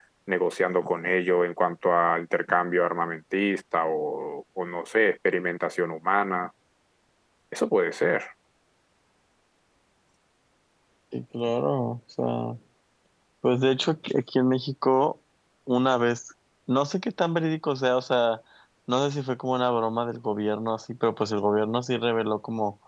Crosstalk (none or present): none